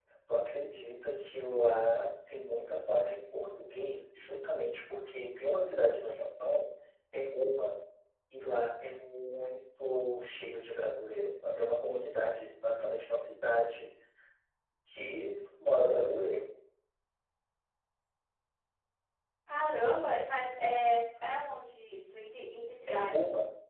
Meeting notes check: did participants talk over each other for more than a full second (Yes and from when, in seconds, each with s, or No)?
No